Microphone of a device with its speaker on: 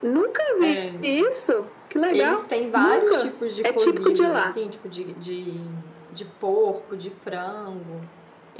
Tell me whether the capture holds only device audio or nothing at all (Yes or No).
No